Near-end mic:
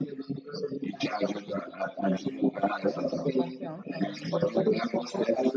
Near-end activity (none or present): present